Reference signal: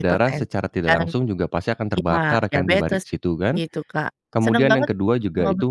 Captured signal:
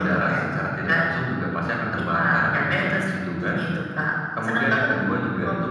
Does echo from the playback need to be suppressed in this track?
Yes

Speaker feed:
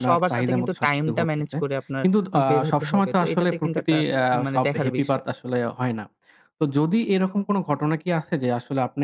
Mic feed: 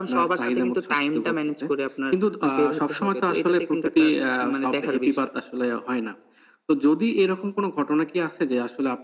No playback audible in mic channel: No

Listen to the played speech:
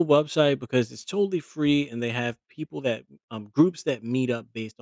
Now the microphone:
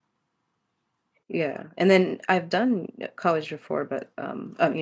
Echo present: No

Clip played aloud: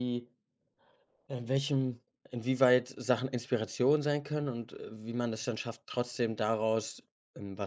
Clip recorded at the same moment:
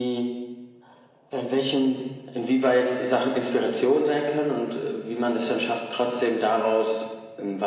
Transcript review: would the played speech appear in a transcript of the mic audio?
Yes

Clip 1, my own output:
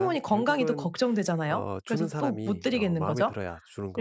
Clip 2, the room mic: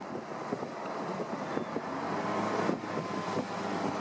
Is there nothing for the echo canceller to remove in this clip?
Yes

